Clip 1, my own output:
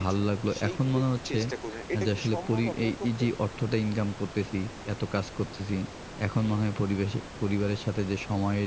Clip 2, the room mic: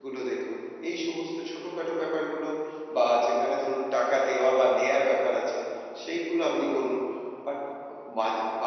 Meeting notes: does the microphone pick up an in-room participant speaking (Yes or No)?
Yes